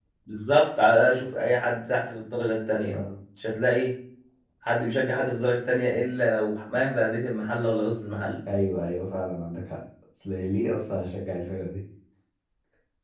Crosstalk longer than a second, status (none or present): none